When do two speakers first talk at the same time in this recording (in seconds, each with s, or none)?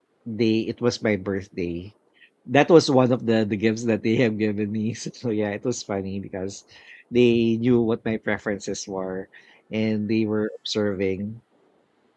none